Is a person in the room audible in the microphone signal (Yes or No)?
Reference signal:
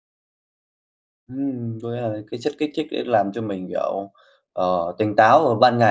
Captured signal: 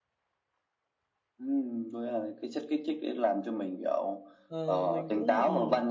Yes